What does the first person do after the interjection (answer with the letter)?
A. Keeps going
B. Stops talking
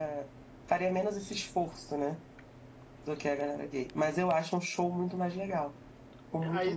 B